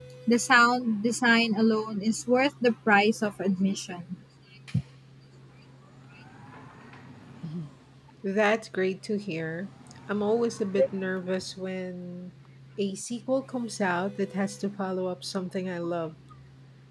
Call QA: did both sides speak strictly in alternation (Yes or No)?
Yes